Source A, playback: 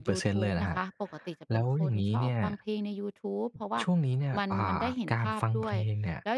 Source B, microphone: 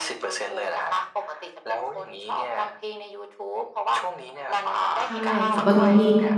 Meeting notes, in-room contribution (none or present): present